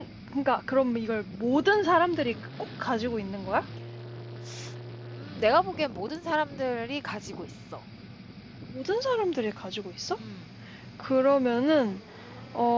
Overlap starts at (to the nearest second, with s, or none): none